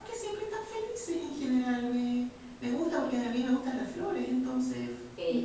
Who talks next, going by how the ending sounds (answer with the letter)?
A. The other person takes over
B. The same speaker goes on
A